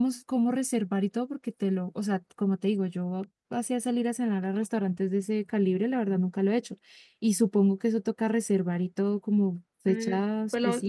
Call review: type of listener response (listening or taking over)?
taking over